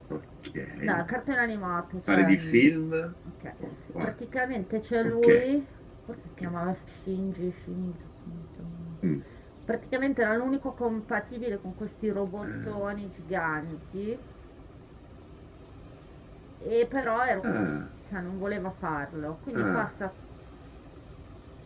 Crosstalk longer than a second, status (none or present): none